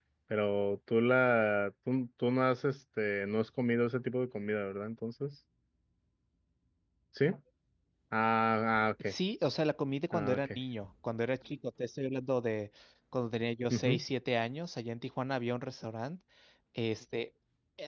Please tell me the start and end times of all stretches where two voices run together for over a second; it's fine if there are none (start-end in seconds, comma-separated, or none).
none